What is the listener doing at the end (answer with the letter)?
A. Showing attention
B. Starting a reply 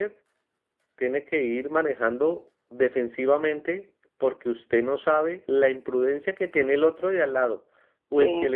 A